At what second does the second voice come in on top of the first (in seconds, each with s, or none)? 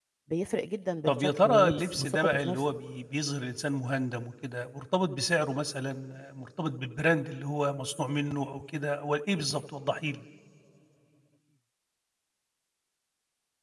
1.1 s